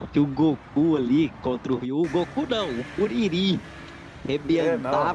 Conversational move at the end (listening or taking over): taking over